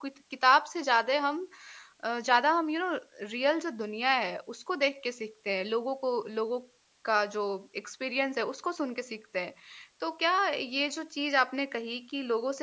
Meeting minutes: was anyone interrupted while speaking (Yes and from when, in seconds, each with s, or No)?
No